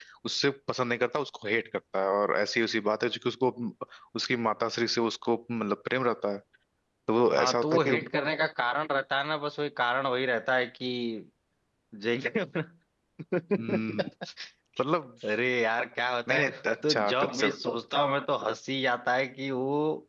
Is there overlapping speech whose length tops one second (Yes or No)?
Yes